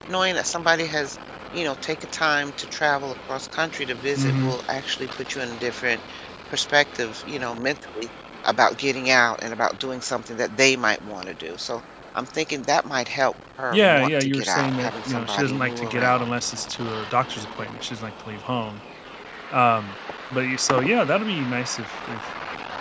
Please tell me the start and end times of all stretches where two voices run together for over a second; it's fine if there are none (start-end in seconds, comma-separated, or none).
13.7-16.3